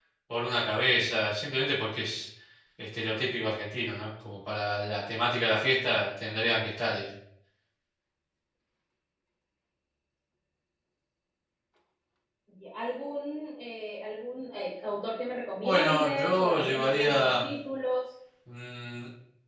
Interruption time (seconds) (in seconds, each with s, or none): 15.6 s